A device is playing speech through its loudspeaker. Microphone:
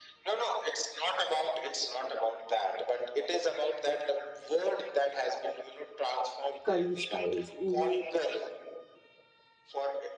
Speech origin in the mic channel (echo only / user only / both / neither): both